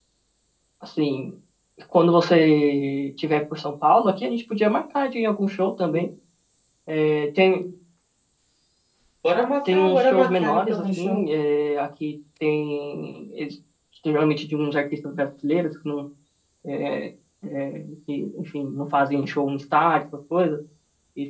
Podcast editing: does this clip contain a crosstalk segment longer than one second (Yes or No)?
Yes